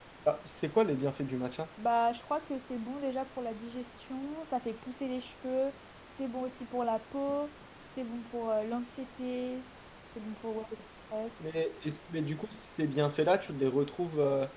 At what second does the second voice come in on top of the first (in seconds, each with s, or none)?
none